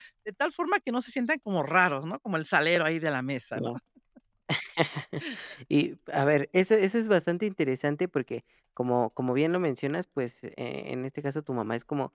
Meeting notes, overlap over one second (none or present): none